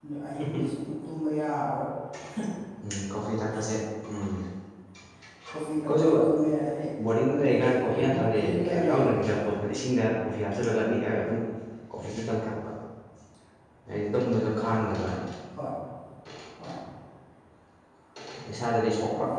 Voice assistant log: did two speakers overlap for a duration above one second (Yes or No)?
Yes